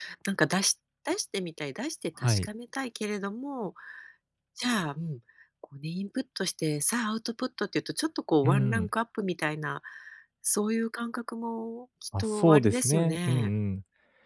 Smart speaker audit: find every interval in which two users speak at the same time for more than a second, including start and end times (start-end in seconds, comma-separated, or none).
12.2-13.4